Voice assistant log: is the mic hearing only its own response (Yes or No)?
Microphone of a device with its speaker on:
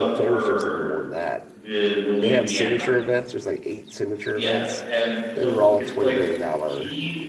No